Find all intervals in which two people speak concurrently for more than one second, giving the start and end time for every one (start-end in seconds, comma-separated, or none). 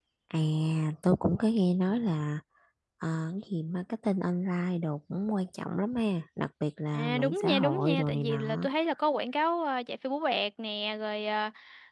6.9-8.7